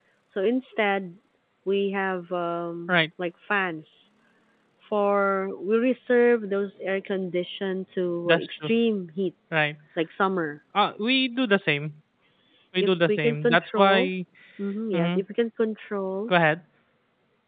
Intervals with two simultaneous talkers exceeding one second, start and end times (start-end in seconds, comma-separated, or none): 12.8-14.1